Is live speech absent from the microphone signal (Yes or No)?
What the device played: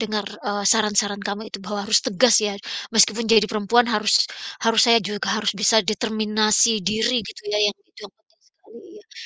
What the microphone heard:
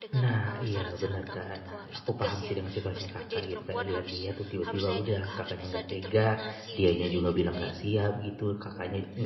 No